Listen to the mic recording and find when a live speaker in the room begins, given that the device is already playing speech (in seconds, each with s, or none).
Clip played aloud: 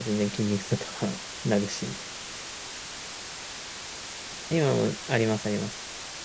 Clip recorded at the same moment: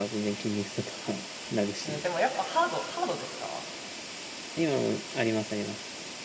1.8 s